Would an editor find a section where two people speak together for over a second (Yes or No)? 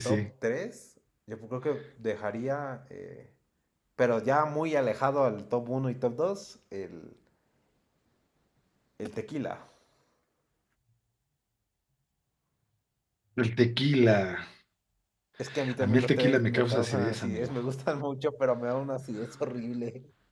Yes